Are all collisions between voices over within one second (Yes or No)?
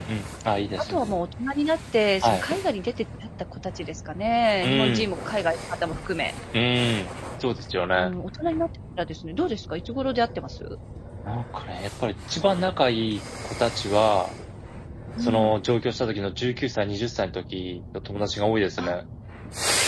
Yes